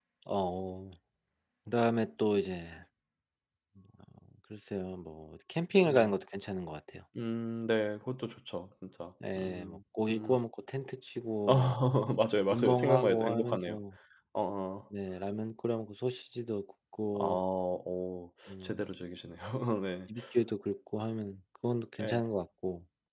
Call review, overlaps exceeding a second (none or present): present